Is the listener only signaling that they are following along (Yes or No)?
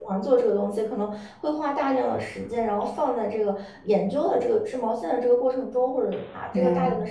Yes